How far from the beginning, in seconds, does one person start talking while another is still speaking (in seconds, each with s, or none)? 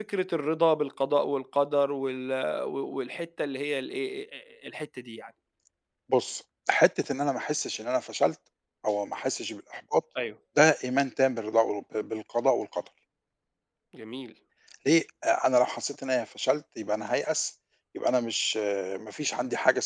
none